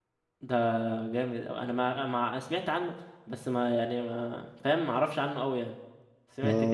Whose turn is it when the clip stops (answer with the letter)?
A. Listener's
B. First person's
A